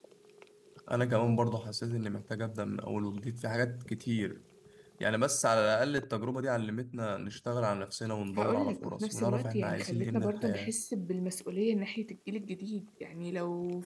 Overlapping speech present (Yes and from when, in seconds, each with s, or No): Yes, from 8.4 s